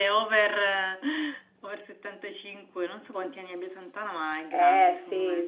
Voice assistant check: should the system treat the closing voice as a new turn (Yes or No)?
Yes